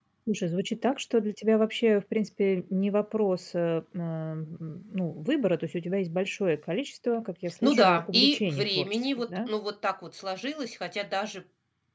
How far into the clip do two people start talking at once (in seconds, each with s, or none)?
7.6 s